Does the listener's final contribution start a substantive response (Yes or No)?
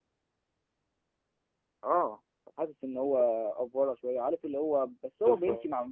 No